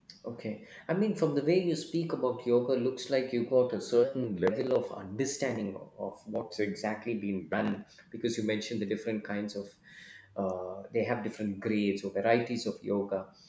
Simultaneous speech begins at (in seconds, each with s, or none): none